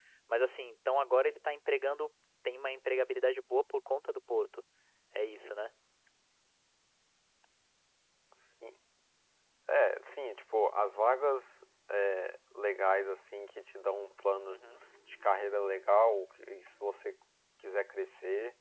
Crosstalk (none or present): none